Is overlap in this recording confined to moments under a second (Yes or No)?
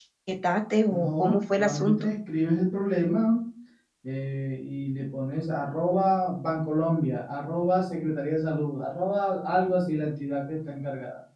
No